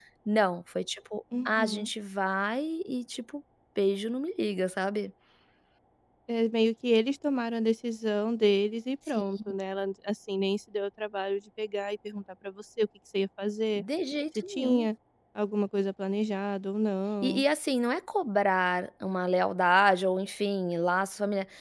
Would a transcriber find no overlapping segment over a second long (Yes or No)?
Yes